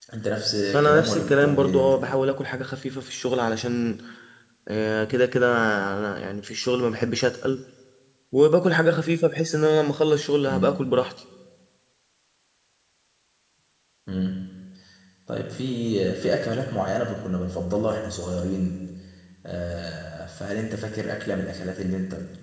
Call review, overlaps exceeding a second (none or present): present